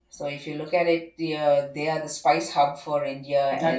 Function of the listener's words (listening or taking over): taking over